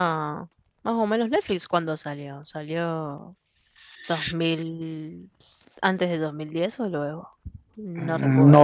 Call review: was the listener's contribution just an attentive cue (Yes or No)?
No